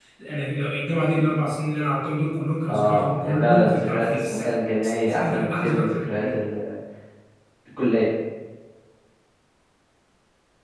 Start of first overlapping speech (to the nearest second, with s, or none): 3 s